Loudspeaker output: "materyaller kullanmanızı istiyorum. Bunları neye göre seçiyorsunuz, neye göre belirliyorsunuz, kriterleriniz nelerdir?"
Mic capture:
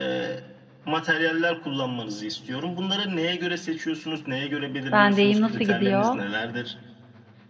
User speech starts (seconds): 4.9 s

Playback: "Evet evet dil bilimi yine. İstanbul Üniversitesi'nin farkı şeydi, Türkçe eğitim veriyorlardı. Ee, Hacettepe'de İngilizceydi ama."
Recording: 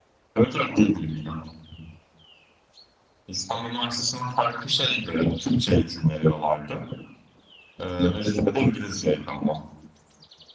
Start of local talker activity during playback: none

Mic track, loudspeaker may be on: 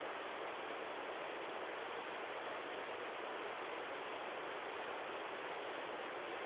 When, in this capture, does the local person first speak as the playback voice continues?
none

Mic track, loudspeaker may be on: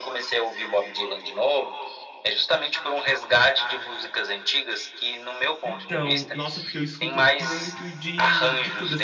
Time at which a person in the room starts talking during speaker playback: 5.6 s

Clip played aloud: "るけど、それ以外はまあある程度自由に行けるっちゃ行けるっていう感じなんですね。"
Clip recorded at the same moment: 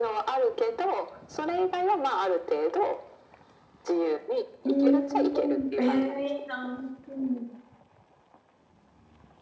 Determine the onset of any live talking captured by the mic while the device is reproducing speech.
4.6 s

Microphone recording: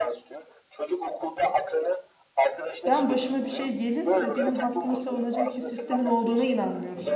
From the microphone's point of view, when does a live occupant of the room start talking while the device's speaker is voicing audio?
2.9 s

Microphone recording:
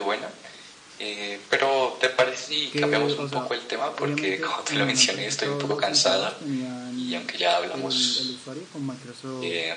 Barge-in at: 2.7 s

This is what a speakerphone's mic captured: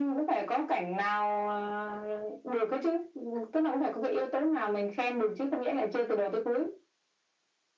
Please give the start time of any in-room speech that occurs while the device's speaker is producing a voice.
none

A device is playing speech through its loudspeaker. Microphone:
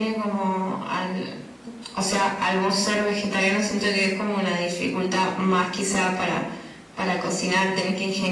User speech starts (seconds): none

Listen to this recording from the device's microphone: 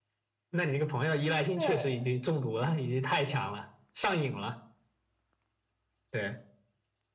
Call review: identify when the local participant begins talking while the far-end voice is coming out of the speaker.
1.5 s

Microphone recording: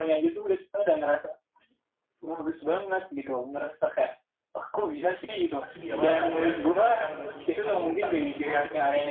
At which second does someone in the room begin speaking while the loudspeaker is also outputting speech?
5.6 s

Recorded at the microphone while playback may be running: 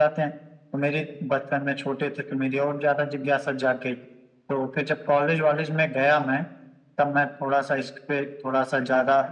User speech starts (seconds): none

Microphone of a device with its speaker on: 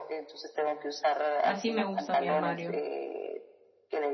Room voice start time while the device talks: 1.4 s

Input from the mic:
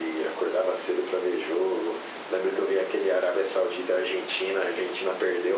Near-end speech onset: none

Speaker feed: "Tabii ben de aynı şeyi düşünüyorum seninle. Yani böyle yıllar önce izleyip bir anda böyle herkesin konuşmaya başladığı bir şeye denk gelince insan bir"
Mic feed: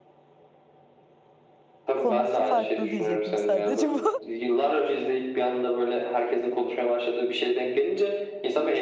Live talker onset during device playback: 1.9 s

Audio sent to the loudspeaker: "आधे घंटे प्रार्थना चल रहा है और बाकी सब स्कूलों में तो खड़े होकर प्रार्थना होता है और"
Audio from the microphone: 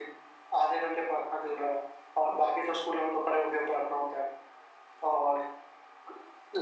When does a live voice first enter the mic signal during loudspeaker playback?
none

